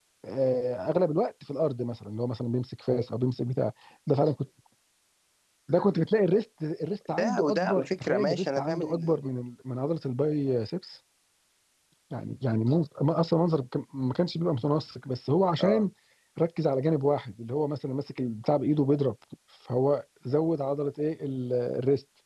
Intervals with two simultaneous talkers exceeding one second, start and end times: 7.1-9.2

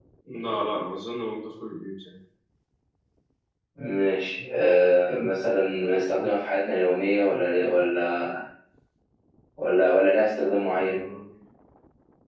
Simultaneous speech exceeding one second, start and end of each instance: none

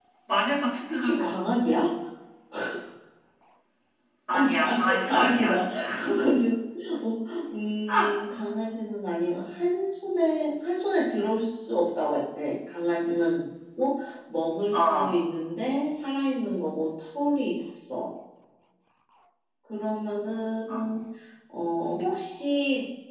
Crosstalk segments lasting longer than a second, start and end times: 4.3-5.6

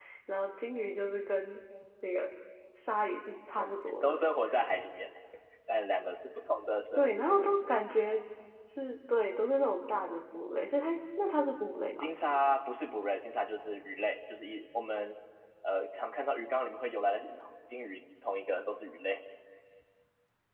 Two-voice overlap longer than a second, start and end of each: none

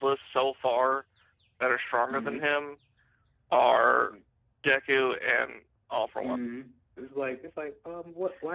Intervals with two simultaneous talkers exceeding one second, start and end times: none

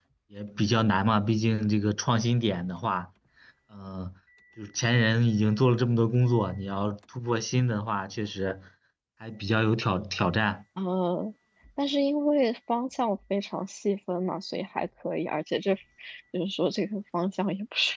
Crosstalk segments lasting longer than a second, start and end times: none

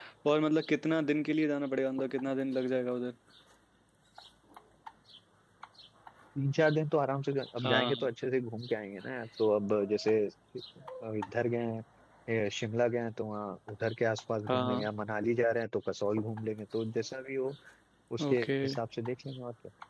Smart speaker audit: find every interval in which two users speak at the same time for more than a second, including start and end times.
none

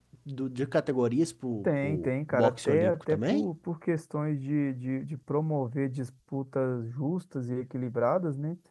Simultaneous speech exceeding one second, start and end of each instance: 1.6-3.5

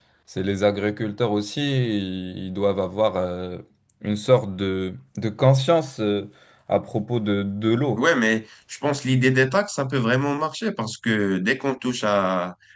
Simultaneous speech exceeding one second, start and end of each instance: none

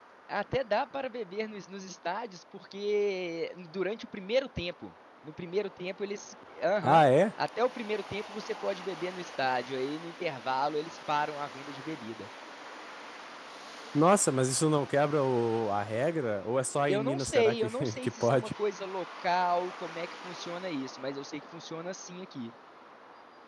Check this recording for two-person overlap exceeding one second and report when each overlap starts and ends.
16.9-18.5

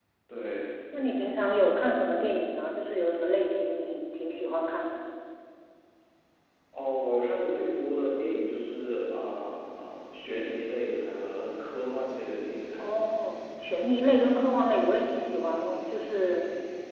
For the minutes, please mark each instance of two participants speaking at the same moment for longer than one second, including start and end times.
none

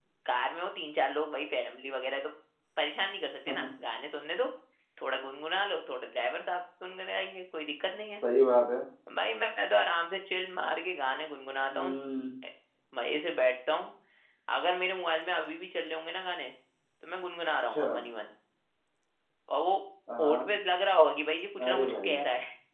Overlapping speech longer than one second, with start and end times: none

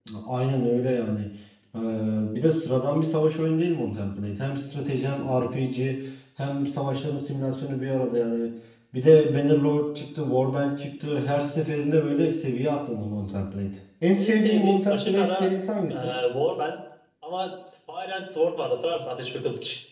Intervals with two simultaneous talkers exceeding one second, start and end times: 14.2-15.4

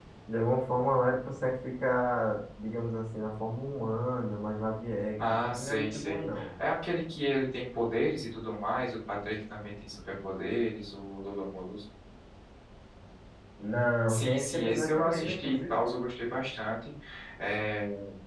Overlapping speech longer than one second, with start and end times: 5.2-6.5, 14.1-15.7

